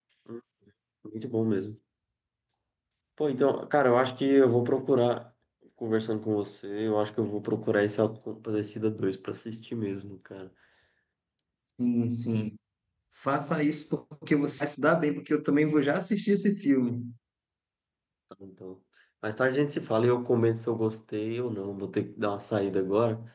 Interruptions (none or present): none